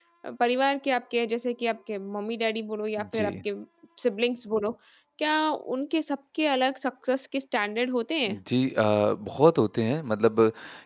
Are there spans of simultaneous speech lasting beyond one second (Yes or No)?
No